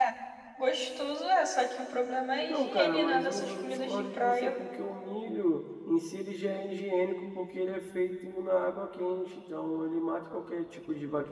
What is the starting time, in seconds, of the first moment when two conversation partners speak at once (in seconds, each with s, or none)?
2.5 s